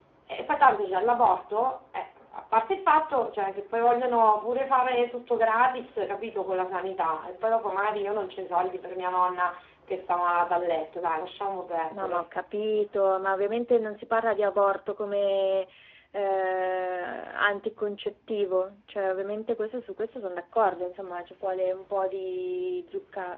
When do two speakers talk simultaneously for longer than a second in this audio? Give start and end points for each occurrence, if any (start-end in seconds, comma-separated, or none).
none